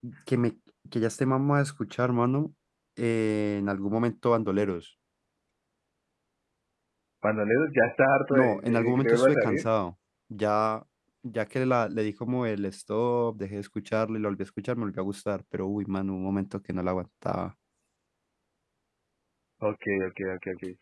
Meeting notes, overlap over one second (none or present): present